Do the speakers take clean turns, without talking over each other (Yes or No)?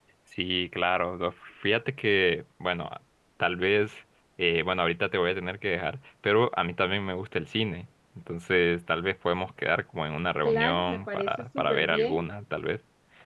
No